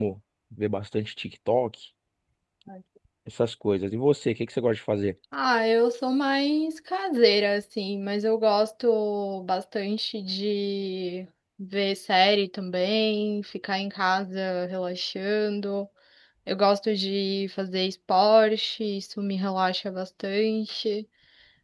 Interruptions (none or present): none